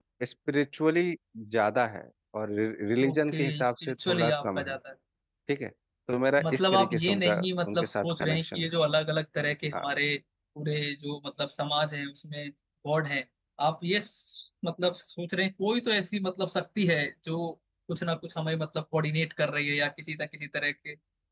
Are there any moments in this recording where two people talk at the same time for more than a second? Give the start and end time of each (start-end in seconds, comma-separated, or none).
3.1-4.7, 6.4-8.6